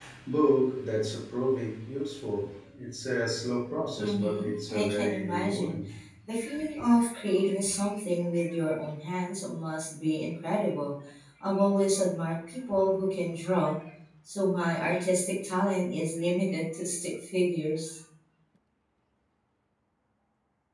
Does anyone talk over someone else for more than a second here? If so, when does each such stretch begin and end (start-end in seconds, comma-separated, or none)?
4.0-5.8